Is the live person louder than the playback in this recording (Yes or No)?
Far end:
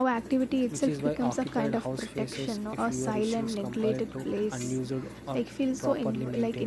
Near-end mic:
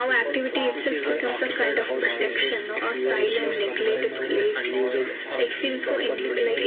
No